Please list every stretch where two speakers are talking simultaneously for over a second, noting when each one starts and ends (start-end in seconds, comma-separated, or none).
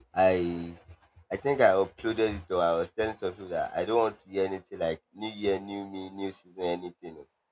none